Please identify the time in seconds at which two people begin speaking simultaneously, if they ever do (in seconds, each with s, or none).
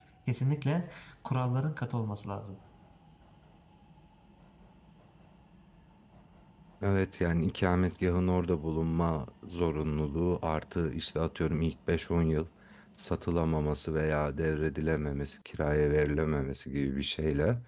none